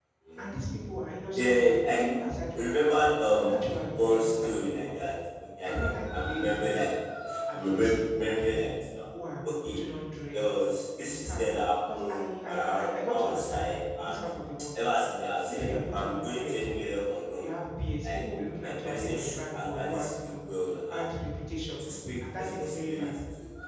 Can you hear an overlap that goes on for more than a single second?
Yes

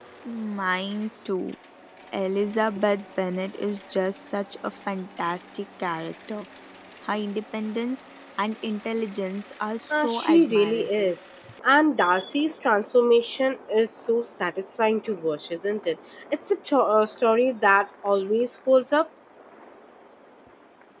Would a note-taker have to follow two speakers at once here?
Yes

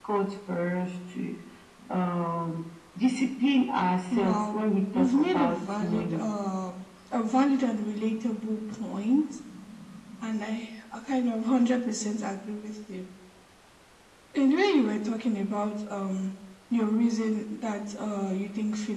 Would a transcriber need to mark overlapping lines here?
Yes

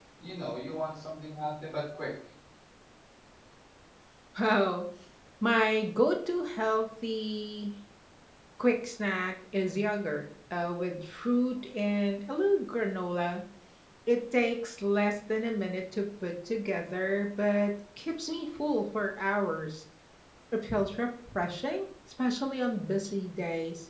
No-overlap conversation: Yes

